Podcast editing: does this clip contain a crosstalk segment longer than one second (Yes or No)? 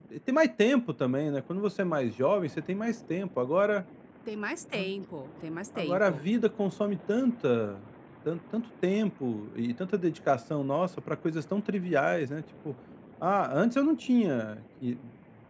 No